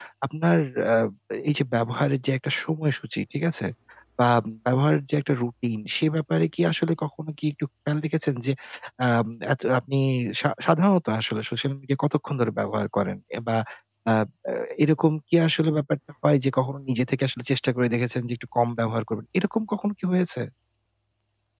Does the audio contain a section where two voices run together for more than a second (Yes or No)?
No